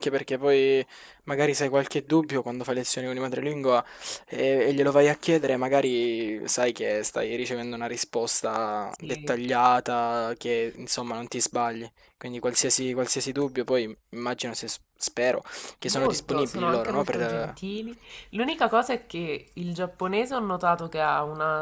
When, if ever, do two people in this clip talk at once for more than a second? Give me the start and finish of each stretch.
15.9-17.5

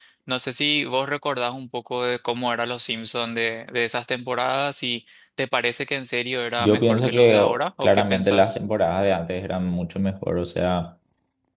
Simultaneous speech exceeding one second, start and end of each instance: 6.6-8.6

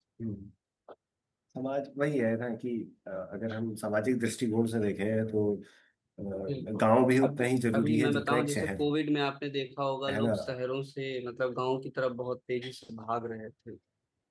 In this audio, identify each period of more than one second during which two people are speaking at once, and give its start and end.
7.2-8.8

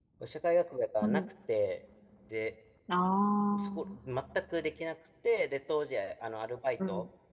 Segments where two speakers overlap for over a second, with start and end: none

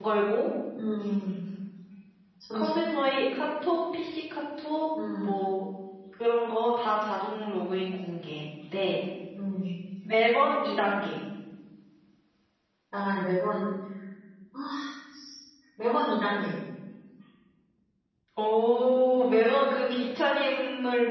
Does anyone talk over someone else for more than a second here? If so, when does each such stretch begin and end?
none

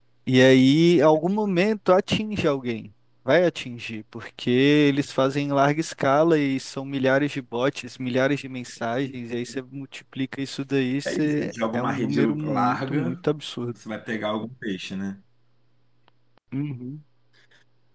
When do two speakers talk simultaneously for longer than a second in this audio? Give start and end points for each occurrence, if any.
11.1-13.2

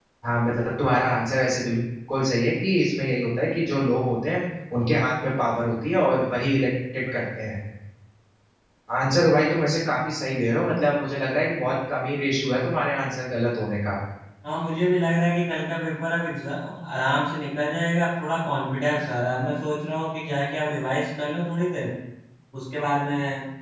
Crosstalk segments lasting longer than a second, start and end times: none

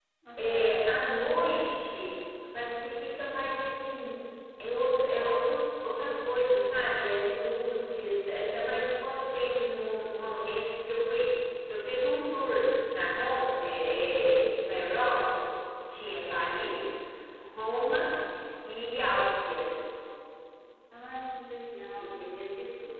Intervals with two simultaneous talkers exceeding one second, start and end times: none

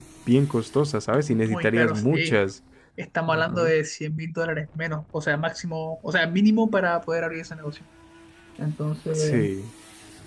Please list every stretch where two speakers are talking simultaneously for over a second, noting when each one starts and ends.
1.1-2.4

